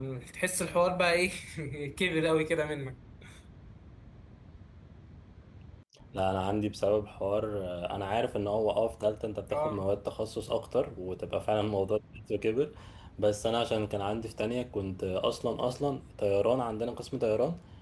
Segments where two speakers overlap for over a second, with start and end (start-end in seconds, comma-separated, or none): none